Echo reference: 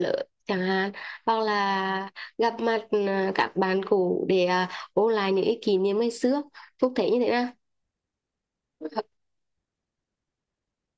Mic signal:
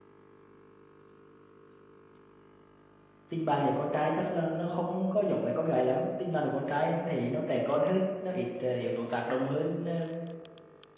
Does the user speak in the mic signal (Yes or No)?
Yes